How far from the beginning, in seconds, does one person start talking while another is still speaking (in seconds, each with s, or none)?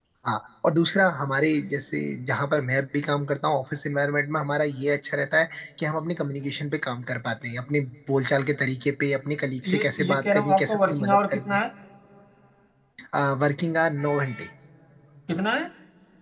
9.6 s